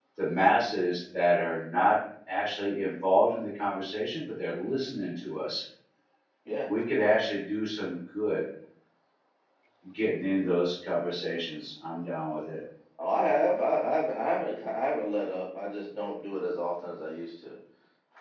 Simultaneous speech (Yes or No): No